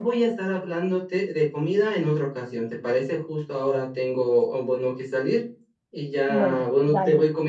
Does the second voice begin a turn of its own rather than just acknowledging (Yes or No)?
No